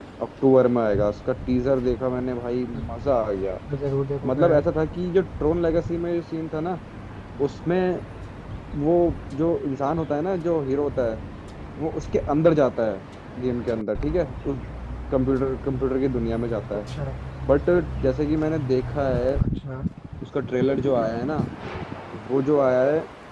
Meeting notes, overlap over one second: none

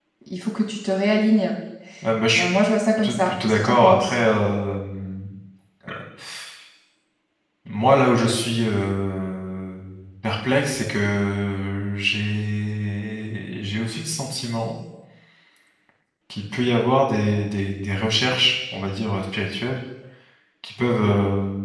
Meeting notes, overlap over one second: present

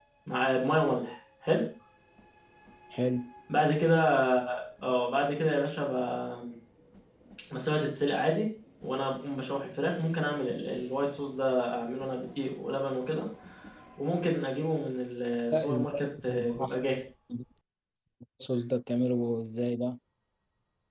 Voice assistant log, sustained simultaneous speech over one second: present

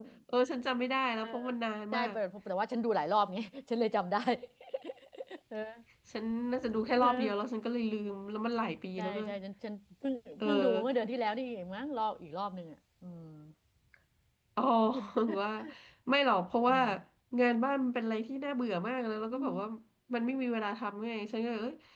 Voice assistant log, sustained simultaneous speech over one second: none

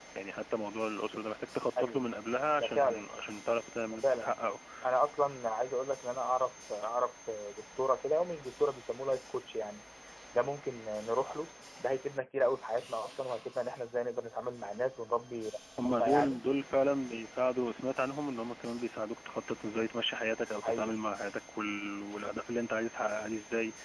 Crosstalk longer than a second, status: none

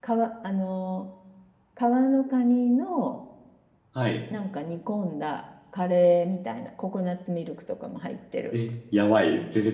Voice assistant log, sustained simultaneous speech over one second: none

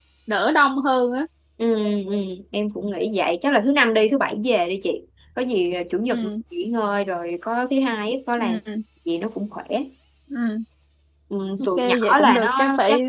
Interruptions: present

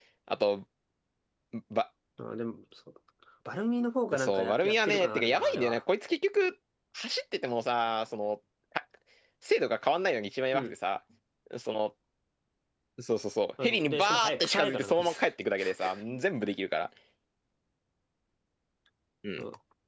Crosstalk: present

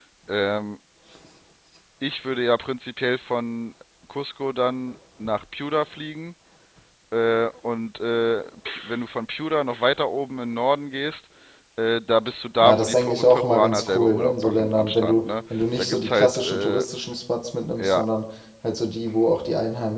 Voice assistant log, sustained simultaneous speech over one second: present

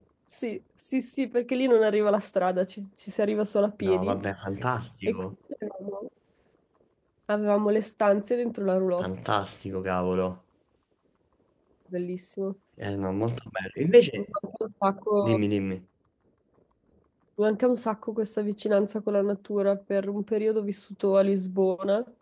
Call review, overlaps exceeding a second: none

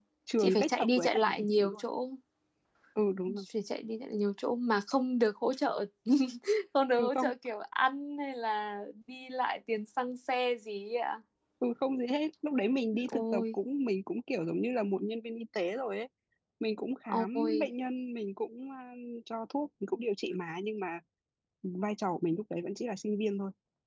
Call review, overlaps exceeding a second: present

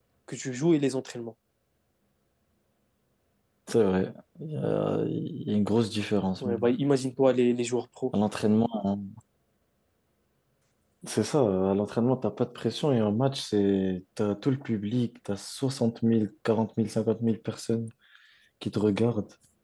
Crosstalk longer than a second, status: none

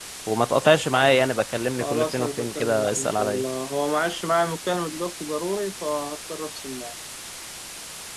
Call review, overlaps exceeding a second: present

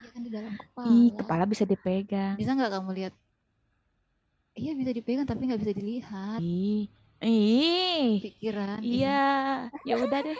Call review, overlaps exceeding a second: none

